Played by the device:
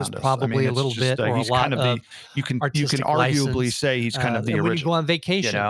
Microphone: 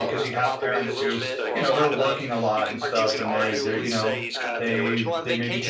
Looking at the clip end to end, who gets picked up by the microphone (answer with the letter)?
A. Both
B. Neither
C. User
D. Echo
A